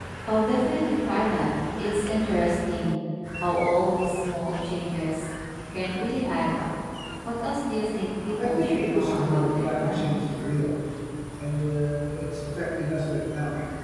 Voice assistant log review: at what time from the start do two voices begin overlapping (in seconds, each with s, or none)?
8.4 s